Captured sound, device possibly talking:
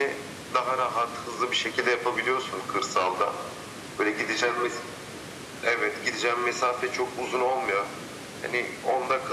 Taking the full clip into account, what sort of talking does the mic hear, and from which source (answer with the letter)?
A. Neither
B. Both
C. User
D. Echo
D